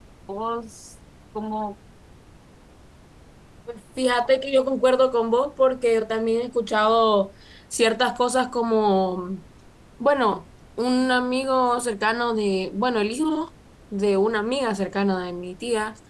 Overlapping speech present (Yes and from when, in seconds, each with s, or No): No